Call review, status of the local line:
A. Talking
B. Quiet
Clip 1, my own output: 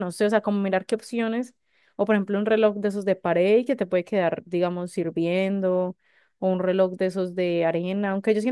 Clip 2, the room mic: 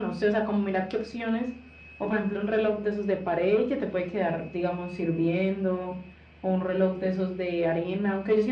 B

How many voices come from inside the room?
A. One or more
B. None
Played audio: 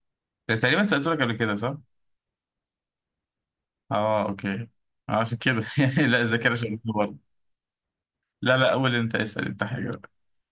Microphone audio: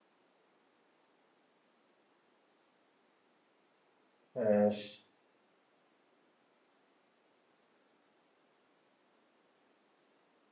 A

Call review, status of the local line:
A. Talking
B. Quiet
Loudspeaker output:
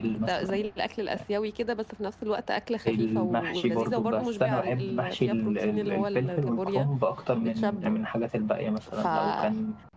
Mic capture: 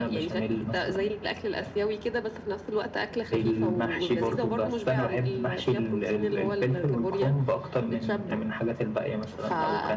B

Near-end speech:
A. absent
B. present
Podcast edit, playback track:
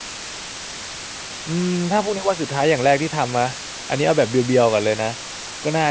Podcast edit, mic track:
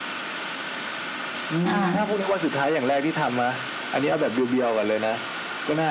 B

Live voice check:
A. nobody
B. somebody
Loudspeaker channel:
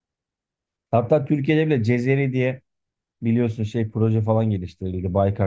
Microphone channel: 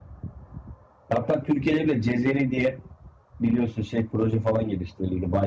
A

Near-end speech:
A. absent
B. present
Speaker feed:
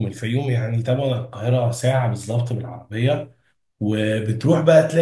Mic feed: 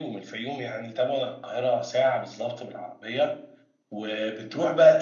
A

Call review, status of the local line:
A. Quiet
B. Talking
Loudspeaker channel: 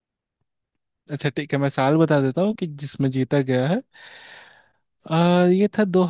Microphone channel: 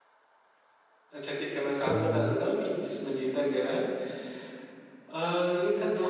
B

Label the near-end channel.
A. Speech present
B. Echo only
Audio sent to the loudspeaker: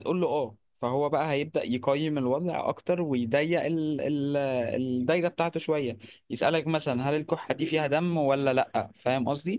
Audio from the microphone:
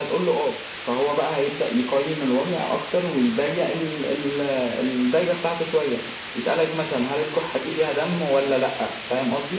B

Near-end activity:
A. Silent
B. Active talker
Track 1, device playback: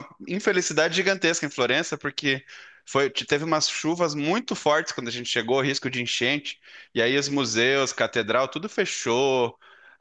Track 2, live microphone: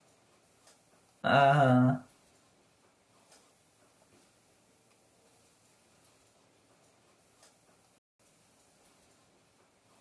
B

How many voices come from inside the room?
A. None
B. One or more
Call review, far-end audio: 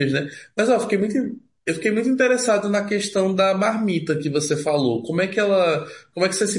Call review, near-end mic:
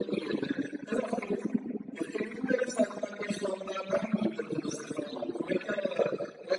A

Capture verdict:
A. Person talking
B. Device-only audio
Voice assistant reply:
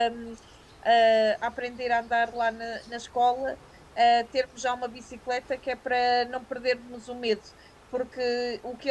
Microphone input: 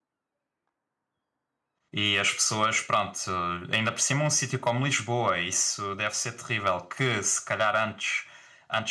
A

